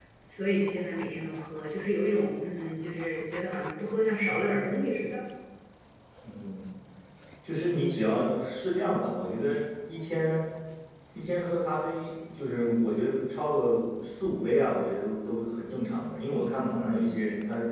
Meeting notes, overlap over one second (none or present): none